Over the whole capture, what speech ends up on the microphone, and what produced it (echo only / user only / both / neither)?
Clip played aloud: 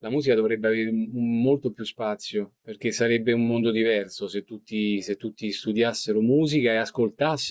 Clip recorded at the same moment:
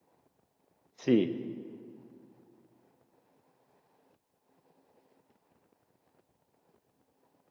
user only